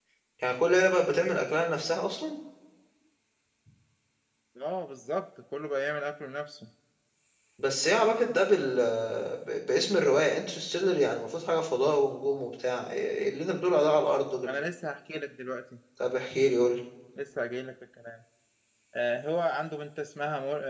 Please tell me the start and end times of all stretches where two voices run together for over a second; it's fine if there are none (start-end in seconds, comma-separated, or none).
none